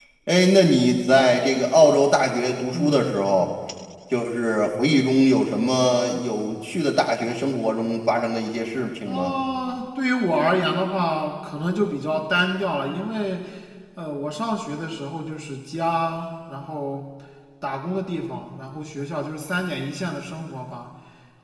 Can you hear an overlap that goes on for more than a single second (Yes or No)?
No